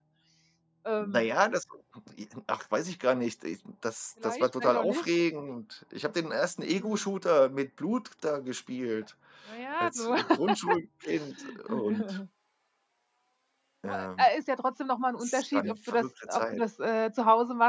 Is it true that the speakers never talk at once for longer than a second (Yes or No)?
No